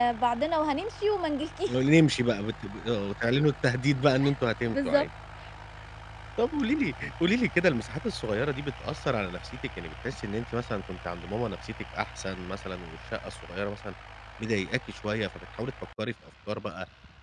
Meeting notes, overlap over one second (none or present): none